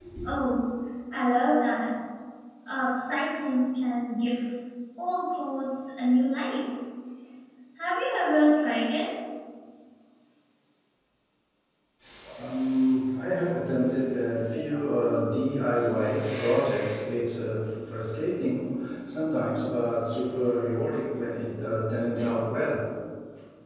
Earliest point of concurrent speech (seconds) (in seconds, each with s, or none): none